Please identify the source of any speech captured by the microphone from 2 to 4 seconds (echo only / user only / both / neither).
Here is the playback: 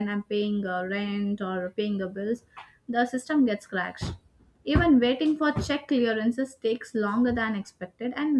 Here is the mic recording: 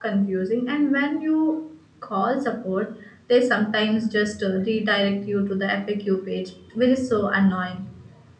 user only